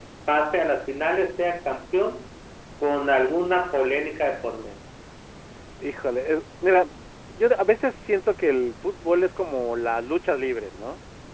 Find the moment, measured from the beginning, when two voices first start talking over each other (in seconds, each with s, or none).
none